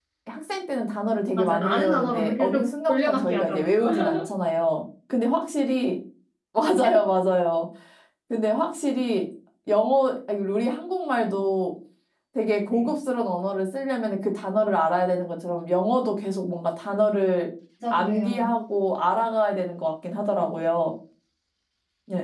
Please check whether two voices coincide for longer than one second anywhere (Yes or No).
Yes